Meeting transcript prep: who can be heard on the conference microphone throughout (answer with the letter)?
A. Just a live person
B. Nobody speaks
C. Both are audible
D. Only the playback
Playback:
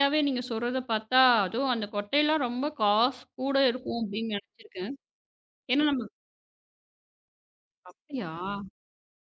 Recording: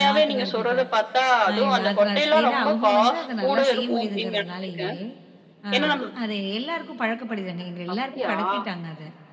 C